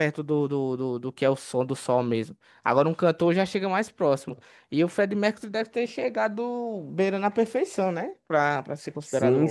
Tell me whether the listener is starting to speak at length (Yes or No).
Yes